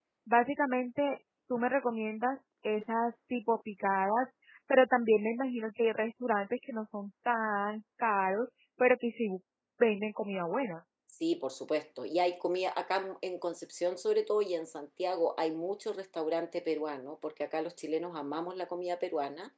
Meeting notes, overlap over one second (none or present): none